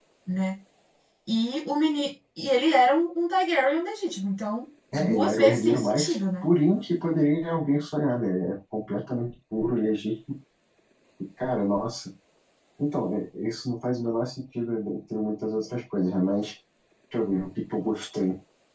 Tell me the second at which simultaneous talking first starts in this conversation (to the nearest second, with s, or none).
5 s